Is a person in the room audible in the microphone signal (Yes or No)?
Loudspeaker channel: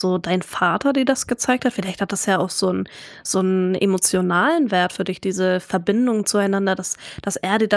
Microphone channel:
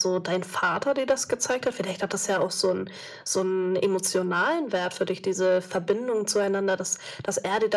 No